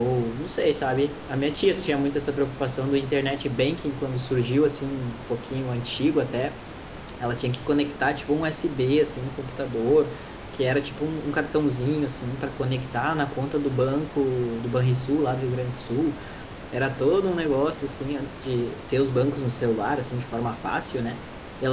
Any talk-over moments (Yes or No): No